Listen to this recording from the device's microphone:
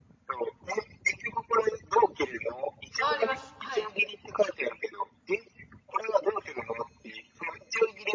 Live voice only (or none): あ、あります。はい。